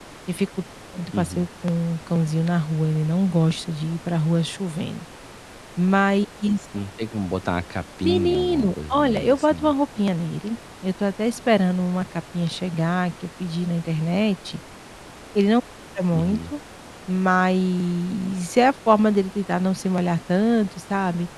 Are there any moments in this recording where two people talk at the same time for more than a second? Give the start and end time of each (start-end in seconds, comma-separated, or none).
8.0-9.7